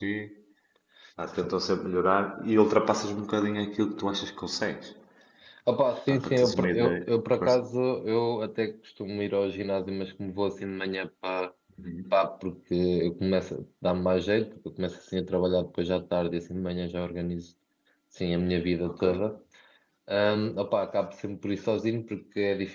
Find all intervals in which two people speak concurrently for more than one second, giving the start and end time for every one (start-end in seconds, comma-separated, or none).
6.1-7.6